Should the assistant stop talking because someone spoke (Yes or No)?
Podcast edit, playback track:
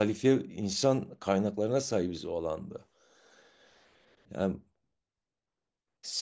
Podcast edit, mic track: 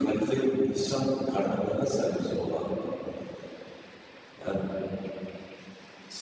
No